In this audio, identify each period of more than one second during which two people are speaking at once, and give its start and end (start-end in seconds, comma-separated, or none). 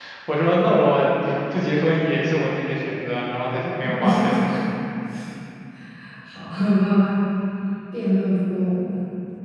none